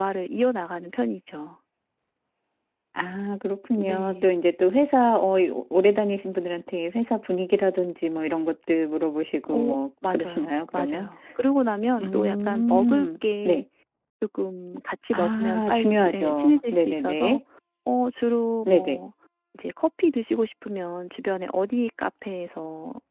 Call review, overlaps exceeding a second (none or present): present